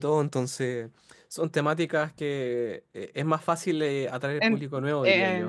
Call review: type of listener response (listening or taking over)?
taking over